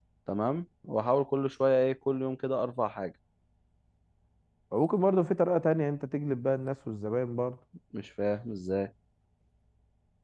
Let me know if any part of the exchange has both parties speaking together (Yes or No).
No